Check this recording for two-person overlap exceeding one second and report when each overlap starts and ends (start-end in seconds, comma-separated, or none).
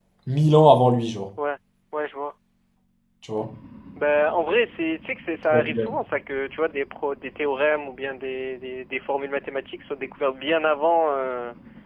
none